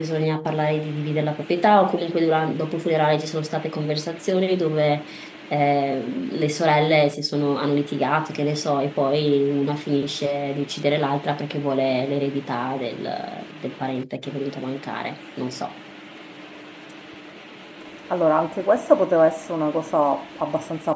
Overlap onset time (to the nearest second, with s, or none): none